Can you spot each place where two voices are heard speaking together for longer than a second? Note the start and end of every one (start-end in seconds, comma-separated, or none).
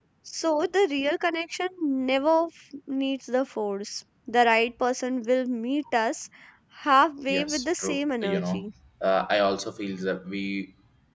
7.3-8.7